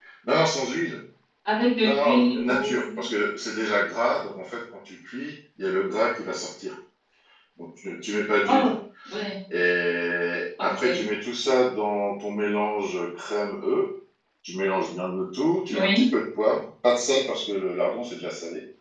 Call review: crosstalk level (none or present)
present